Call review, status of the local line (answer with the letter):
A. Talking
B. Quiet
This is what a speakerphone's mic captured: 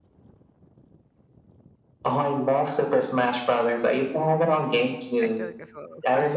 A